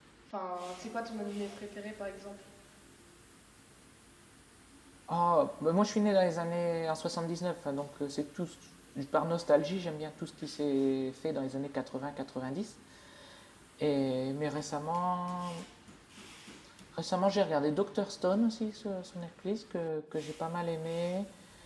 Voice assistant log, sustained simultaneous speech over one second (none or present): none